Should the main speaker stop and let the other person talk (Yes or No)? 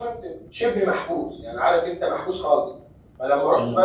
No